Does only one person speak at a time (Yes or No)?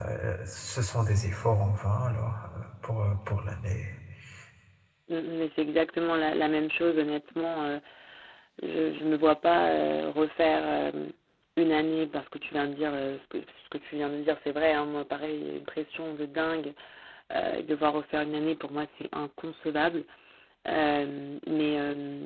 Yes